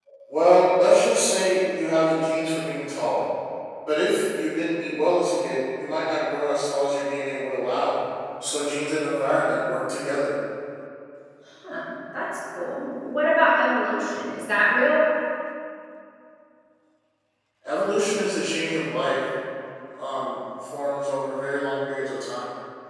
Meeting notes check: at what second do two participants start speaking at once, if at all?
none

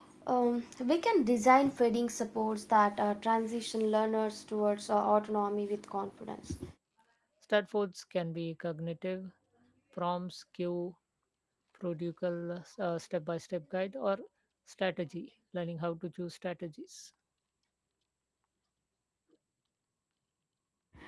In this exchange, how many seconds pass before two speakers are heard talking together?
none

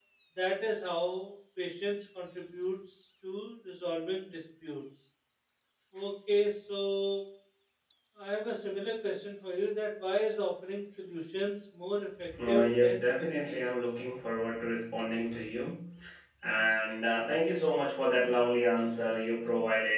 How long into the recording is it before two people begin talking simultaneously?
12.5 s

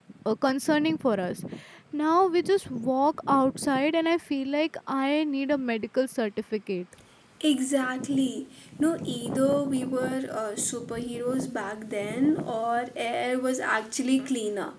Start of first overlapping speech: none

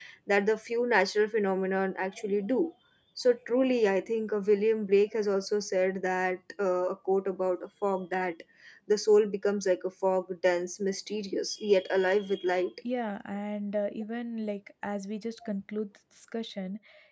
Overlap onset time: none

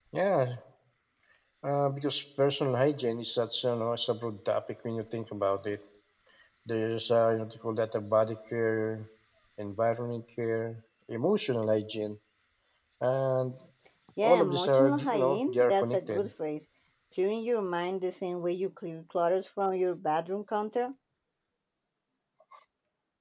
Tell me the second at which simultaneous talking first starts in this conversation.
14.2 s

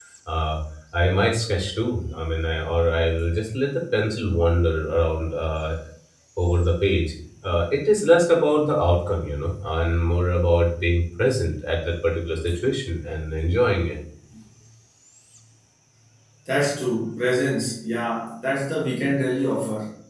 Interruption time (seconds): none

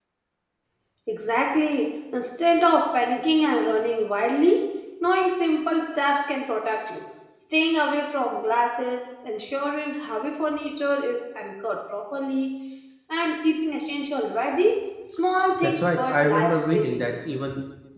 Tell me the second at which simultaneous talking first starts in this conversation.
15.6 s

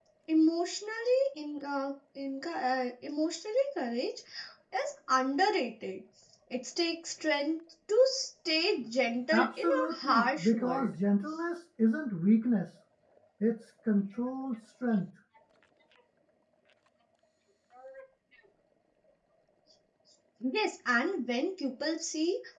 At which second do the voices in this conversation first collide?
9.3 s

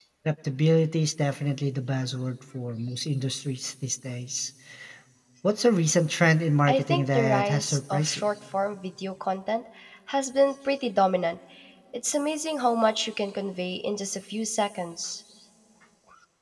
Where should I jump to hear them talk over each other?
6.7 s

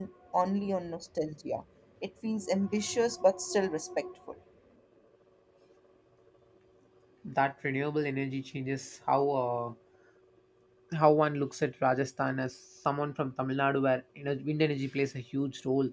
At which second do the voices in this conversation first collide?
none

